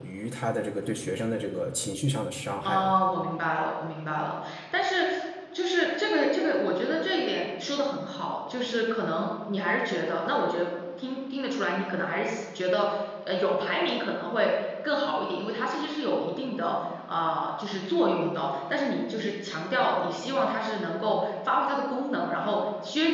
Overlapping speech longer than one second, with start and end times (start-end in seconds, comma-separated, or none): none